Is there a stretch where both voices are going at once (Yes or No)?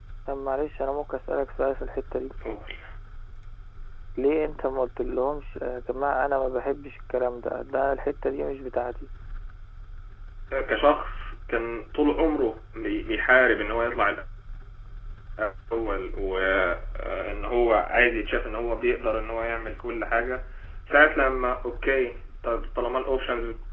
No